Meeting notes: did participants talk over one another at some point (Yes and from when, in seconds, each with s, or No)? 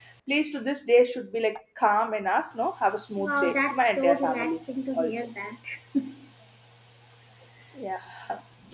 Yes, from 3.2 s